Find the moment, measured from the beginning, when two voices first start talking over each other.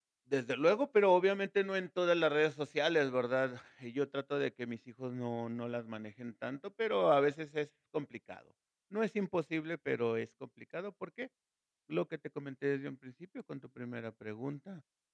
none

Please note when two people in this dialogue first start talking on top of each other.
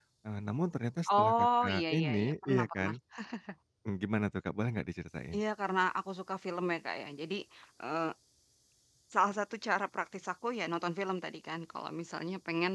1.1 s

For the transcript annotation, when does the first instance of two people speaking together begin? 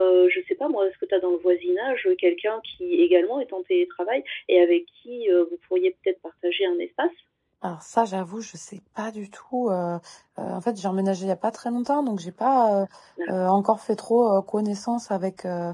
none

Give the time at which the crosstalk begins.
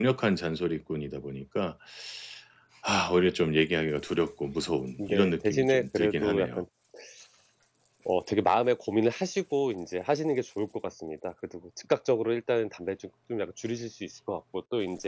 5.0 s

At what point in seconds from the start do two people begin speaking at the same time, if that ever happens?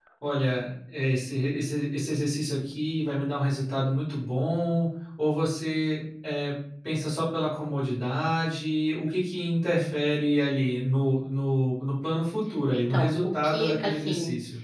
12.7 s

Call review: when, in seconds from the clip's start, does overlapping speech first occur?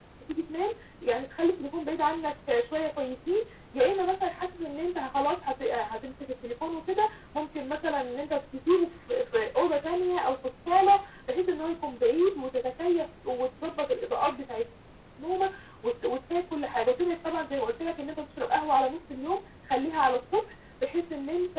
none

